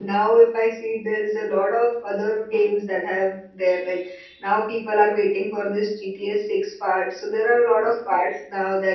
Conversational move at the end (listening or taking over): listening